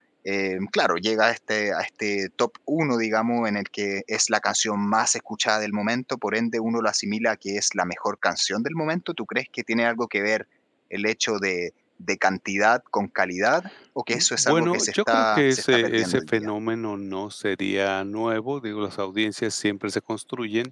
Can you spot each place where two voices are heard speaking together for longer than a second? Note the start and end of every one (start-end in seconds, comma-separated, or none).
14.1-16.5